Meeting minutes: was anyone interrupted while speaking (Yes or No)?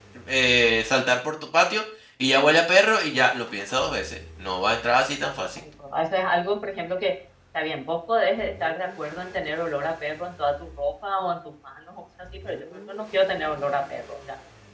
No